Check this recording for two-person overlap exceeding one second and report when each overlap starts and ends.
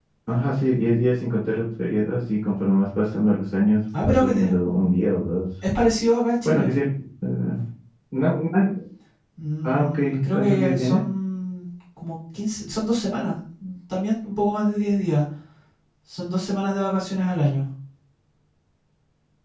9.6-11.0

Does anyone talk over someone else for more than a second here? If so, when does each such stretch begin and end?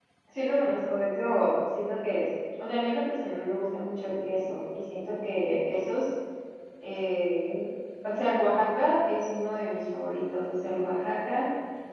none

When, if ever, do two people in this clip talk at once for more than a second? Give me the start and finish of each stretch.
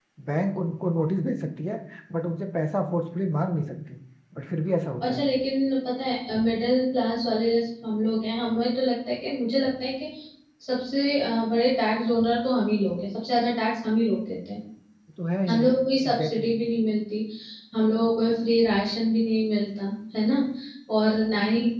none

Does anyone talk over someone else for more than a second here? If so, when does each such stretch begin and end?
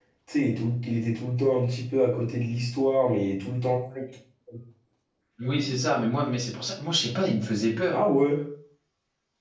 none

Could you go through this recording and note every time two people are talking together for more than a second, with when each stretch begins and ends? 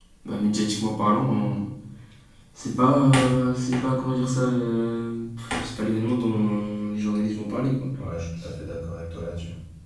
none

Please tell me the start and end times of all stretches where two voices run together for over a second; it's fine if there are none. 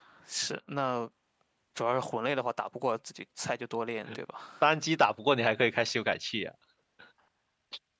none

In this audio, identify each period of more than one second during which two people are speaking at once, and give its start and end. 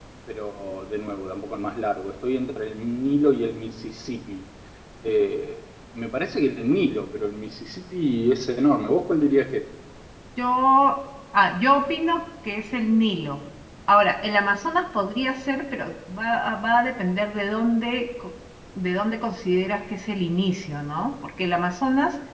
none

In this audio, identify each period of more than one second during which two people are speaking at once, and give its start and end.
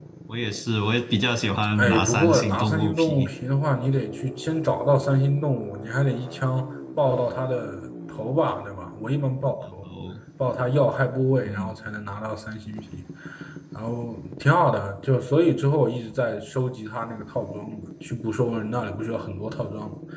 1.8-3.3

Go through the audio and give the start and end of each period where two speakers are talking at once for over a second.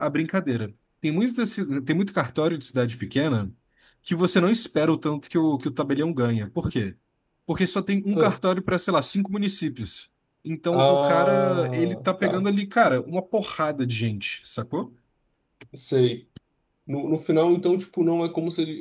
10.7-12.3

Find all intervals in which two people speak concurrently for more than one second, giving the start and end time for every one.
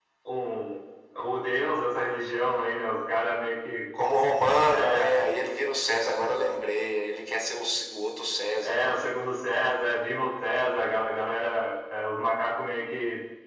none

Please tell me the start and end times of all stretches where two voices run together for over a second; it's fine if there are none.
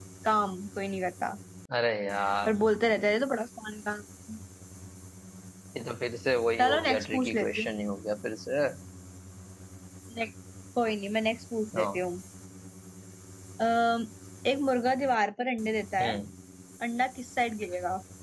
6.6-7.8

